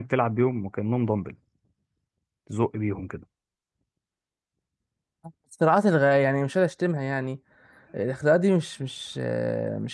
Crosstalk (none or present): none